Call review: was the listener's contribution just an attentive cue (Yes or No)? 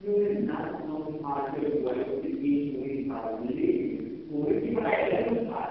Yes